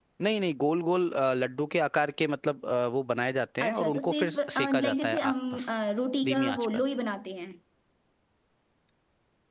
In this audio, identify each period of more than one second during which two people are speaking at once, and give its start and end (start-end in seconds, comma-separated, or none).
3.6-5.3